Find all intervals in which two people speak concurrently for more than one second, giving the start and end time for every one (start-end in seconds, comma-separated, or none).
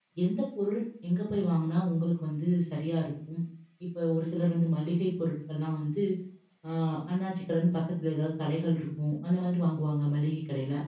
none